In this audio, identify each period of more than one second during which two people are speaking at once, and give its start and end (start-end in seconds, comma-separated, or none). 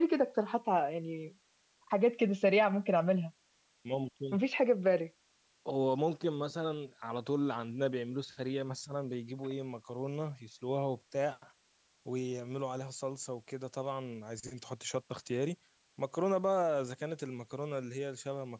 none